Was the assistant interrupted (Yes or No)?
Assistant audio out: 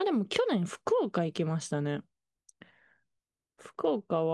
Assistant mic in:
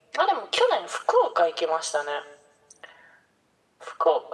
No